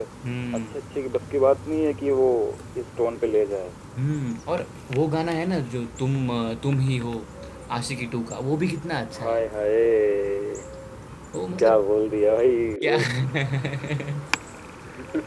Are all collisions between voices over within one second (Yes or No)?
Yes